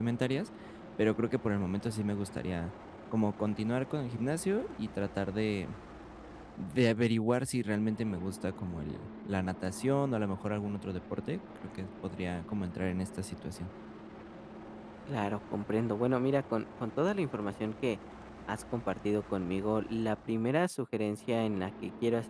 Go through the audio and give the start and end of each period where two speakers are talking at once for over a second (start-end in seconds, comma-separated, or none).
none